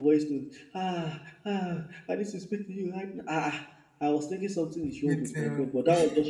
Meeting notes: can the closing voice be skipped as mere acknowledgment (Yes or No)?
Yes